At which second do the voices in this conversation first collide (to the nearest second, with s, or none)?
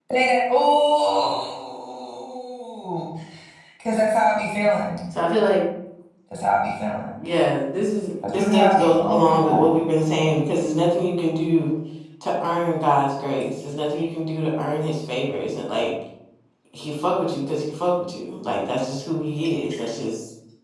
8 s